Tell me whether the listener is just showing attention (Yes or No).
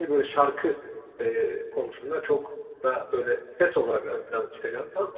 No